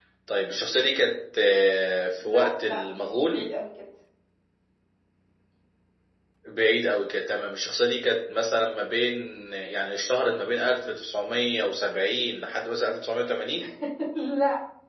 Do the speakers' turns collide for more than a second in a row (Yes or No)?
Yes